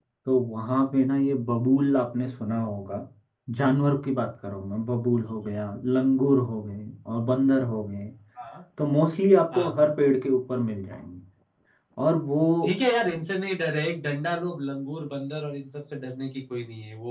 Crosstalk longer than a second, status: none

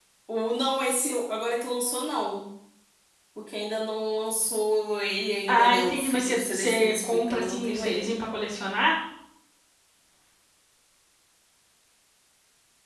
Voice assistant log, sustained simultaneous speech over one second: present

